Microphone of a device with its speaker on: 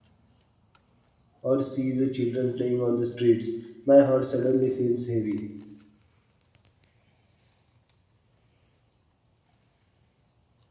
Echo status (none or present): none